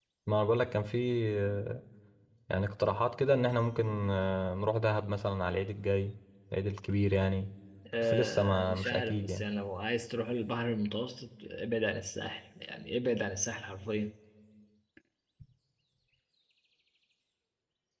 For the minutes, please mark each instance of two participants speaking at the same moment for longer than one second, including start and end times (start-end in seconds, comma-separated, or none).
8.0-9.4